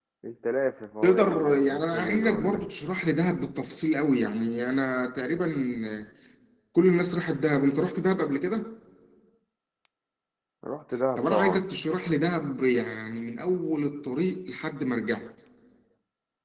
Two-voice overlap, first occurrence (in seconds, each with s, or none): 1.0 s